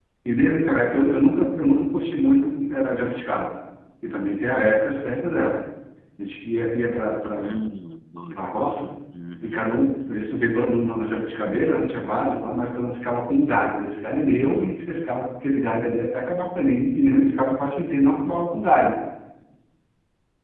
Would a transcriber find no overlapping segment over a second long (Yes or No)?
Yes